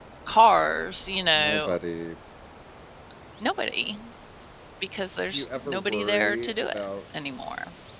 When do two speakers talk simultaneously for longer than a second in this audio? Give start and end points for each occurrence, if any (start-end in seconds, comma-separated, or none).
5.3-6.8